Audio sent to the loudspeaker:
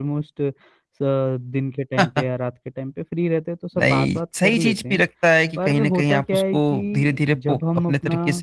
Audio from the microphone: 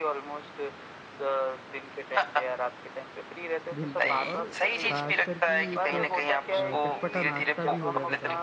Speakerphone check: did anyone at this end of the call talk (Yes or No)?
Yes